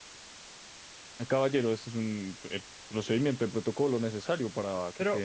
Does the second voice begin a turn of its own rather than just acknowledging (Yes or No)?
Yes